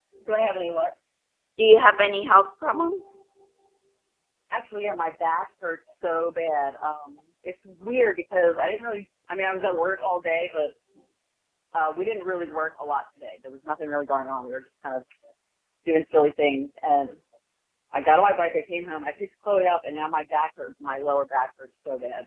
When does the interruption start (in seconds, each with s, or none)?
none